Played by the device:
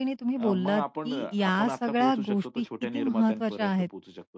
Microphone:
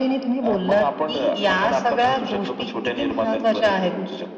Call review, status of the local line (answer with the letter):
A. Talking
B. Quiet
B